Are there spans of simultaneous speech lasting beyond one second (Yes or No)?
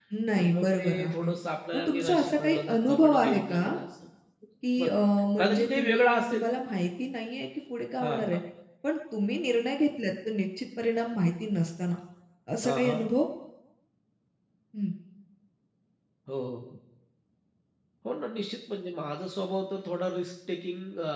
Yes